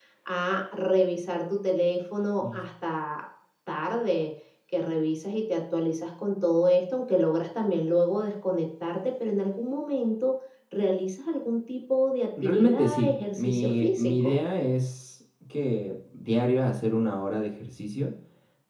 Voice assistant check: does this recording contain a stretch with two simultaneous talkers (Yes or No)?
Yes